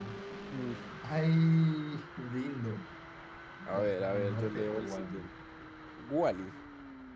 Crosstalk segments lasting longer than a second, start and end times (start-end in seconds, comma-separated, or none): 3.7-5.3